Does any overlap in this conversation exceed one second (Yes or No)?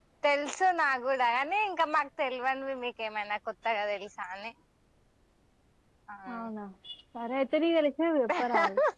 No